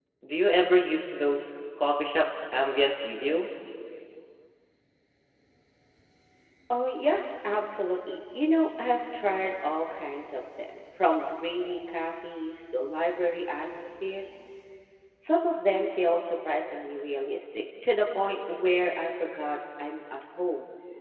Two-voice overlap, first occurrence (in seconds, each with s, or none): none